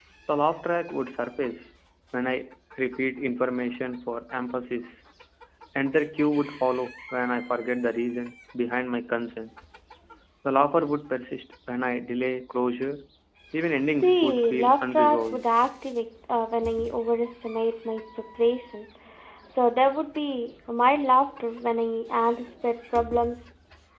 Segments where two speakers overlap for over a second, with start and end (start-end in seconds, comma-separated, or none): 14.0-15.4